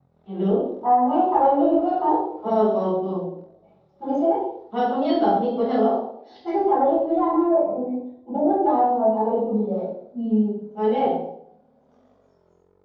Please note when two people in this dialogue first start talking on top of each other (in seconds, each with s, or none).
none